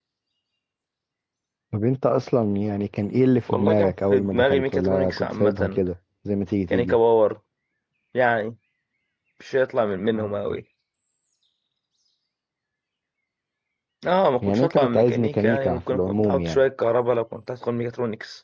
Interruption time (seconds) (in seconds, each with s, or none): 3.5 s